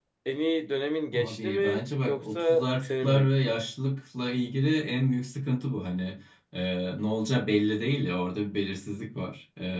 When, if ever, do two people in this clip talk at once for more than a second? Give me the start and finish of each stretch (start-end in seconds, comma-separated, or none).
1.1-3.6